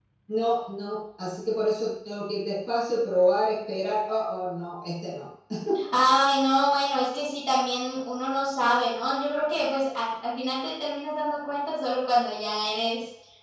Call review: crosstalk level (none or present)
none